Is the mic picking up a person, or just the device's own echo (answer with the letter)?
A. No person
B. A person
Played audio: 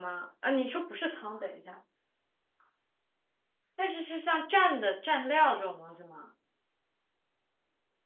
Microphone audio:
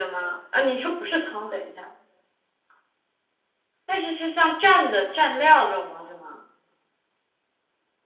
A